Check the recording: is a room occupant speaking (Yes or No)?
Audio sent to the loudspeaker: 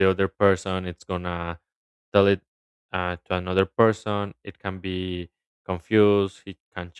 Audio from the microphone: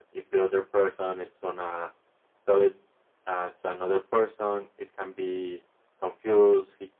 No